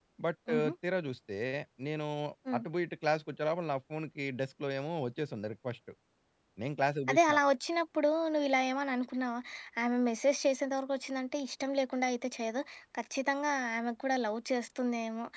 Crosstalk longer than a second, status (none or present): none